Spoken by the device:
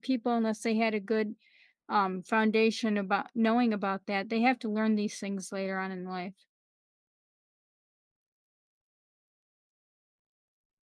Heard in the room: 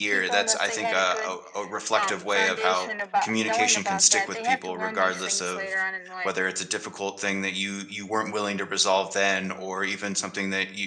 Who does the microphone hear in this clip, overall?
both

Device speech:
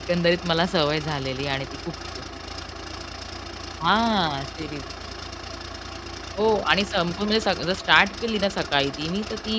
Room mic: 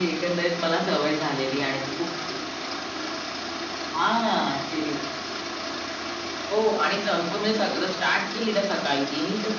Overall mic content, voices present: echo only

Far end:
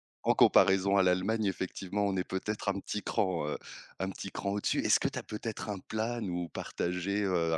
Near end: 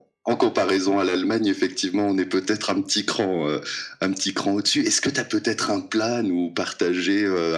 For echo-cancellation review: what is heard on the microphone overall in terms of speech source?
echo only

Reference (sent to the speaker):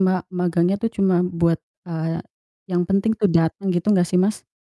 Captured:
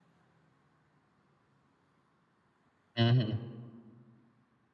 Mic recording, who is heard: user only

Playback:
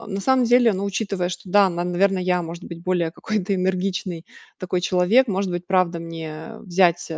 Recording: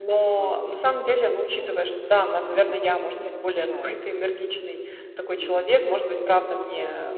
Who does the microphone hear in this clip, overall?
both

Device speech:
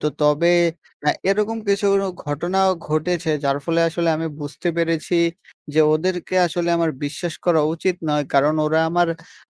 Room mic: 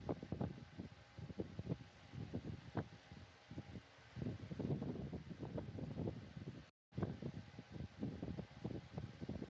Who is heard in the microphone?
neither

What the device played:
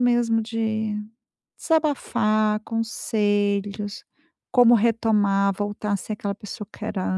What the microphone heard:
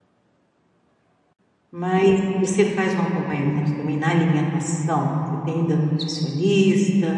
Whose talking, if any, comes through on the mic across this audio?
user only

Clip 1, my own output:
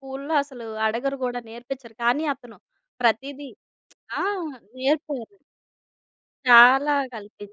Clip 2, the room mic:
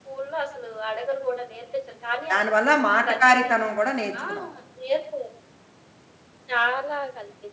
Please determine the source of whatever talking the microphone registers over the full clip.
both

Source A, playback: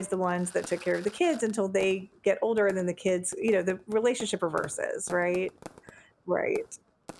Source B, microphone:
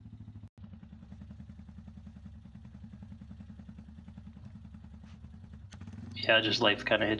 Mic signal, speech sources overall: user only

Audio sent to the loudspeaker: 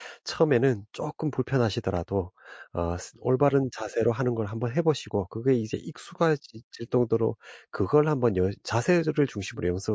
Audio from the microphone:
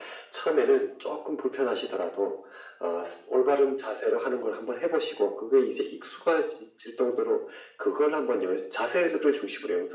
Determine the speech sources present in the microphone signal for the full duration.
echo only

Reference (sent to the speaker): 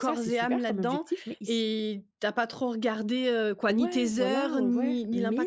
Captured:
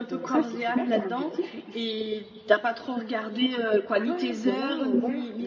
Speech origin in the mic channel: echo only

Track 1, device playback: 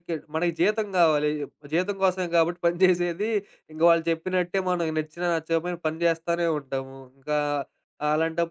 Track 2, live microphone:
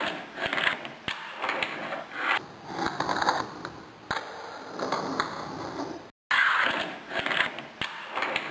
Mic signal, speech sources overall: neither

